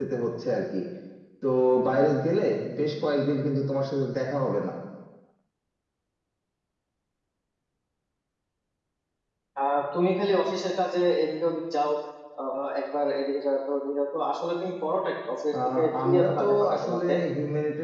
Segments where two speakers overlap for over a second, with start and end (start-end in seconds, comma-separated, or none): 15.8-17.1